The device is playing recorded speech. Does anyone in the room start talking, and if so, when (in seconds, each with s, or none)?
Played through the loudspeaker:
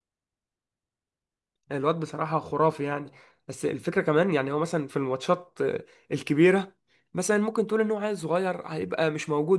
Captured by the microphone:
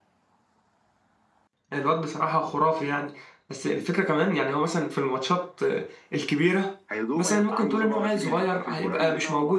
6.9 s